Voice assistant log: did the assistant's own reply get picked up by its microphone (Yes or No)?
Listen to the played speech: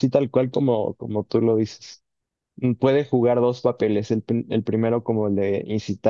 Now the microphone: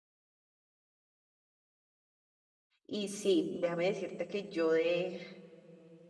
No